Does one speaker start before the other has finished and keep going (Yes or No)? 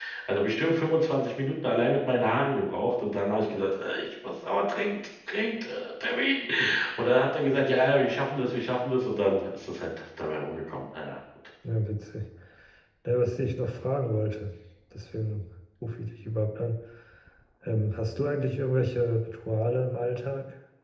No